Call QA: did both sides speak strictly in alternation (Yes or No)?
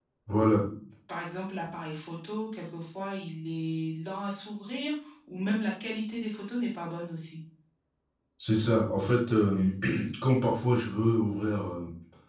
Yes